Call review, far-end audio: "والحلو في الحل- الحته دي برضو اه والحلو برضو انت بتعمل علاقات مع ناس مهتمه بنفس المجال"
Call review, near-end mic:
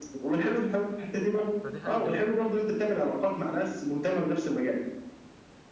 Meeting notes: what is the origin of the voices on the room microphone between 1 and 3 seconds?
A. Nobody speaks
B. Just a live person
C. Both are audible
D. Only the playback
C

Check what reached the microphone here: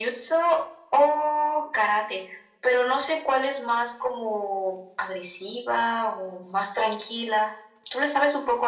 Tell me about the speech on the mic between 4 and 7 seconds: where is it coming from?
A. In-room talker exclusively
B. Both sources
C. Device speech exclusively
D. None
C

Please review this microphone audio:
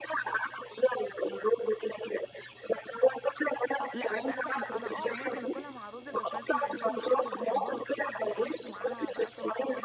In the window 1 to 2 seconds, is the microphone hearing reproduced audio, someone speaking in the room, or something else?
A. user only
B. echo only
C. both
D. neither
B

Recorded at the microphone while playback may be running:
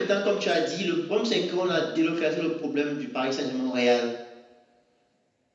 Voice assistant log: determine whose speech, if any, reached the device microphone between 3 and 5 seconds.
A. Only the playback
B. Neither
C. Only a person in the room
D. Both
A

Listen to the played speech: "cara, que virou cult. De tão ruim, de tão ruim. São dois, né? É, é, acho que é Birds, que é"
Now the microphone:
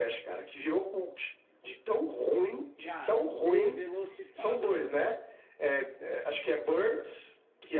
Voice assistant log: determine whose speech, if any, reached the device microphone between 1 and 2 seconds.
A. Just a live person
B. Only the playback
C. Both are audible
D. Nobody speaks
B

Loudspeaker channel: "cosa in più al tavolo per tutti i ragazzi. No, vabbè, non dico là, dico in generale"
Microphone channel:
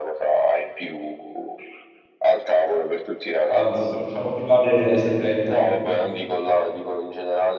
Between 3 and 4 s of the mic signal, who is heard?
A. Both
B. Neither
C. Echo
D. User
A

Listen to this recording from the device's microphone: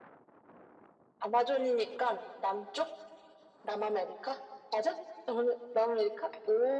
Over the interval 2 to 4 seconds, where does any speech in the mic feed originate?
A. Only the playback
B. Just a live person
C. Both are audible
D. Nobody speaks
A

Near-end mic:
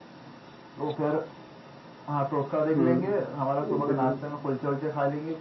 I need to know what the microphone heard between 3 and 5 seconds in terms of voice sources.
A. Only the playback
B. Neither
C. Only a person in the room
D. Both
D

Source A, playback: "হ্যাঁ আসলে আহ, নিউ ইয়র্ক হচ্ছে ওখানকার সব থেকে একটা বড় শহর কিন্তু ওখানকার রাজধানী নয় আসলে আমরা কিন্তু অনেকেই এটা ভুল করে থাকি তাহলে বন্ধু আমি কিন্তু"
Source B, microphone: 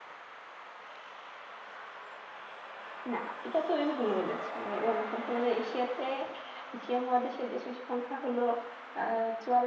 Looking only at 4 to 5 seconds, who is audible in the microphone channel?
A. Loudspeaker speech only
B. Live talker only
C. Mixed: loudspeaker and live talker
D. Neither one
B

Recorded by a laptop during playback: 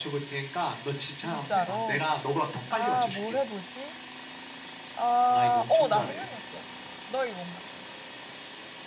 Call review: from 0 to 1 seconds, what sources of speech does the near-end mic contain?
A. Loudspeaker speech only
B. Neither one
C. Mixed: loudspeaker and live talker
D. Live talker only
A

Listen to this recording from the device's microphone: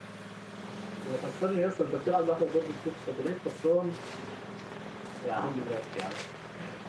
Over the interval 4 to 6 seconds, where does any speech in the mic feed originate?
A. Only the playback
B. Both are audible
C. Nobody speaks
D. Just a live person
D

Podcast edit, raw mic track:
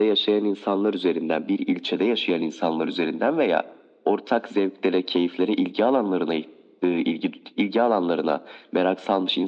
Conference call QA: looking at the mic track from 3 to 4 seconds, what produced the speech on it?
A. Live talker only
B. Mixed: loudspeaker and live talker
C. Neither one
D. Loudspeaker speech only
D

